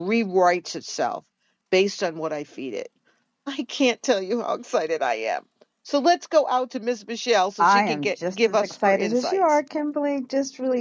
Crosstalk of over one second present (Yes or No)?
Yes